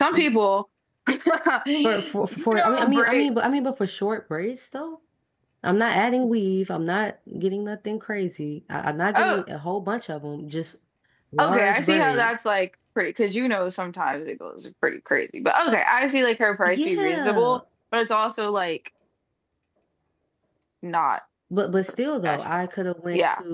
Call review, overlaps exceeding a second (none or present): present